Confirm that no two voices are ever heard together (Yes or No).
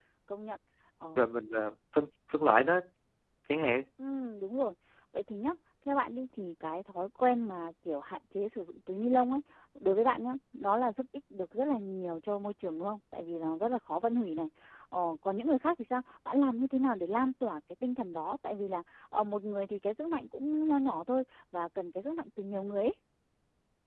Yes